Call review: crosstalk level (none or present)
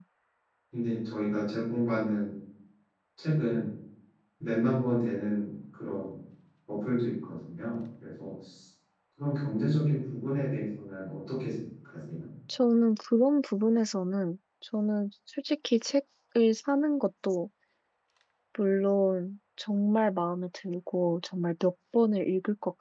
none